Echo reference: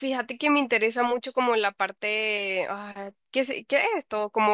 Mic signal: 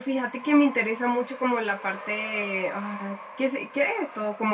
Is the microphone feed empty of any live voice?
Yes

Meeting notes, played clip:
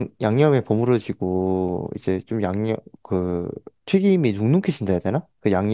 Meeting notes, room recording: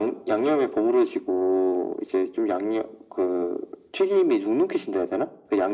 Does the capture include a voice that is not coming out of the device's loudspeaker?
No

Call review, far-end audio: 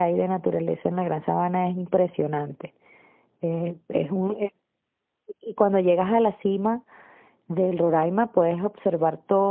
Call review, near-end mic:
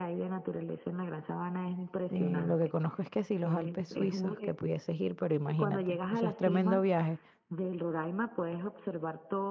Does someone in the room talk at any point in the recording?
Yes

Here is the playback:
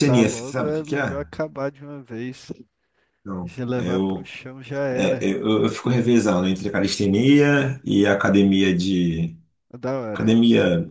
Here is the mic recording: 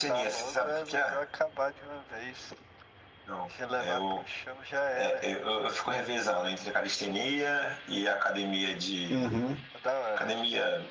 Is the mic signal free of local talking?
No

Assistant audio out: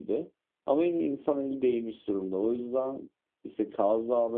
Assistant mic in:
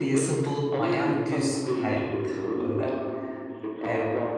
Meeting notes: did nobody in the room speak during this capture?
No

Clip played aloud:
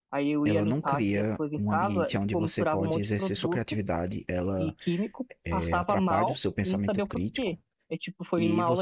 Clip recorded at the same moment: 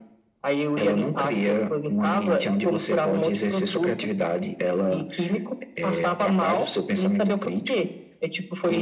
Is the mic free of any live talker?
Yes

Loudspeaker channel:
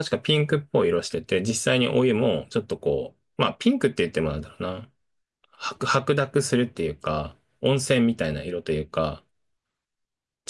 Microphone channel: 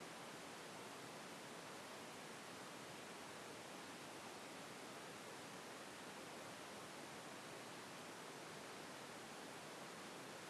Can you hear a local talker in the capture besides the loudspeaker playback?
No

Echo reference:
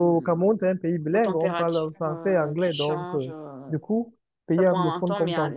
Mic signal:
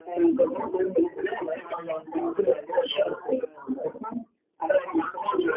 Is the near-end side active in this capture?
No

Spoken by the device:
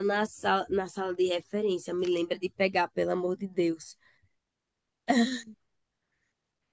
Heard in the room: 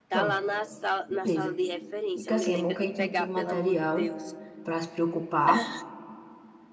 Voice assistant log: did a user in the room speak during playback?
Yes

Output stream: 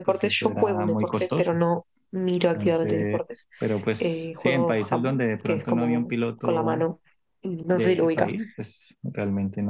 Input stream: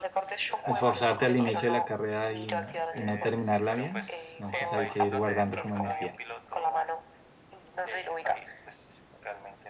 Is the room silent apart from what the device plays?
No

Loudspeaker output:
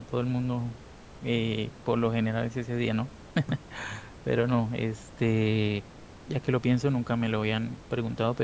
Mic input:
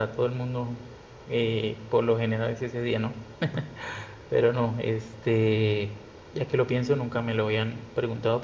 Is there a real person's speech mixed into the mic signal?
No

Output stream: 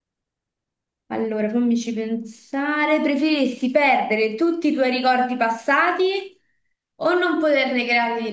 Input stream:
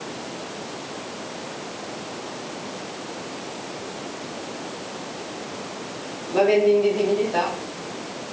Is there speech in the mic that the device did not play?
Yes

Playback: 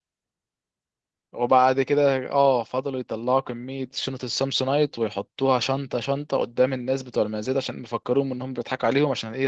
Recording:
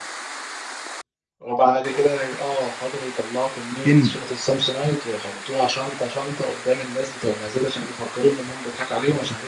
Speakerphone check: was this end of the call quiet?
No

